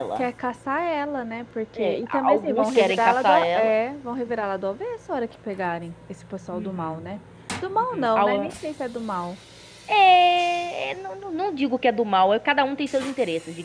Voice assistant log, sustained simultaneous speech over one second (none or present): present